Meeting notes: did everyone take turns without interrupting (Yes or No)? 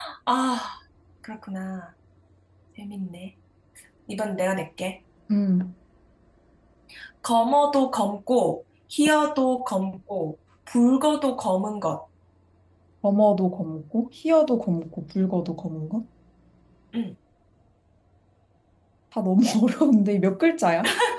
Yes